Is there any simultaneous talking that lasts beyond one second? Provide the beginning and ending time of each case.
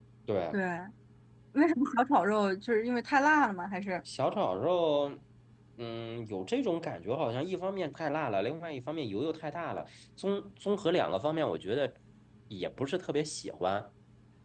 none

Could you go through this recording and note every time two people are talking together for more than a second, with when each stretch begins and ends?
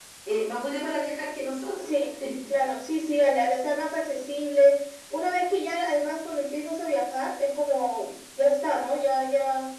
none

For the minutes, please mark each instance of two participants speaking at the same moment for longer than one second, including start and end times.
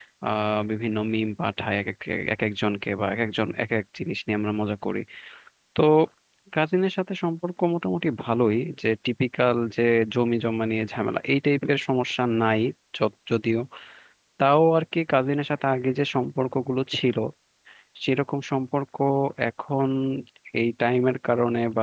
none

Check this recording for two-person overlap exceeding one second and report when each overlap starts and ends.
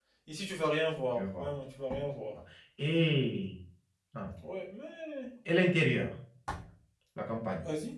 none

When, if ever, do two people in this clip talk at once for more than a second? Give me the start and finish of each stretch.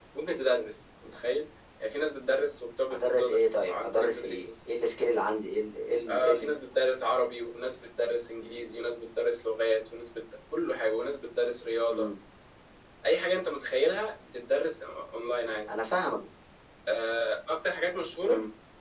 2.9-4.5

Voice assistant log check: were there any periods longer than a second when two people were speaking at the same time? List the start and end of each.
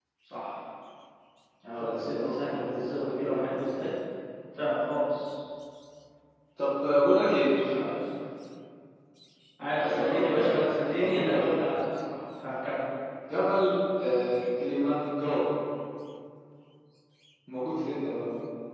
1.8-3.9, 9.7-11.6

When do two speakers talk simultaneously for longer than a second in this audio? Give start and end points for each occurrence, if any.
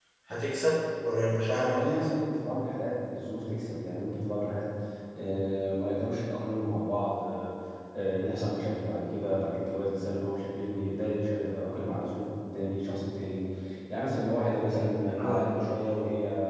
none

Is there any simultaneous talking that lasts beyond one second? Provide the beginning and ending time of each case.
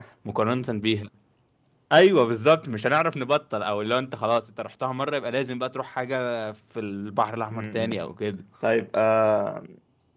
none

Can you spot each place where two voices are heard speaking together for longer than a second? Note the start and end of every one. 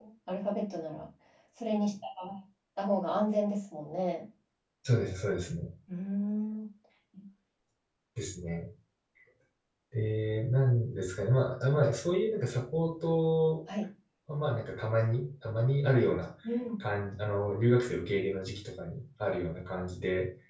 none

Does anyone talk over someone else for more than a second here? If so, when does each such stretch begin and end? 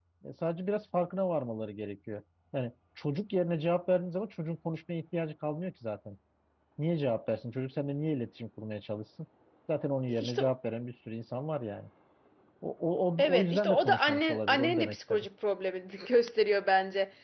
13.2-15.3

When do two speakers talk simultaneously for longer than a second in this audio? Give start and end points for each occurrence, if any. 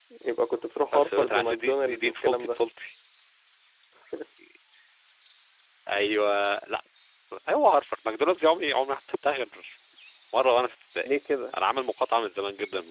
0.9-2.6

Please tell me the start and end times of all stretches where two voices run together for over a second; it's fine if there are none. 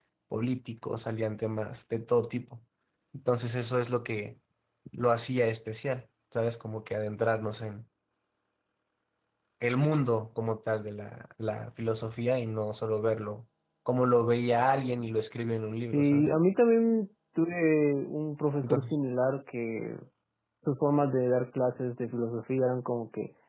none

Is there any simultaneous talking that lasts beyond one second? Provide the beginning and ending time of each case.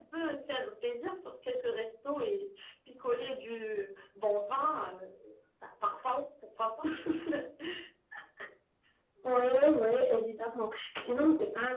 none

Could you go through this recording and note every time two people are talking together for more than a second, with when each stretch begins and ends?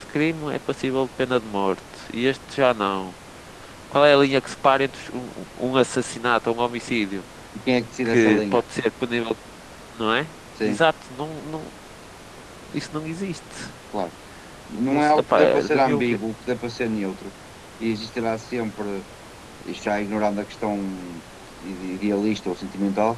14.9-16.2

